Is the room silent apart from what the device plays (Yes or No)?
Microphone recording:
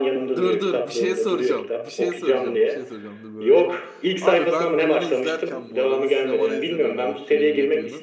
No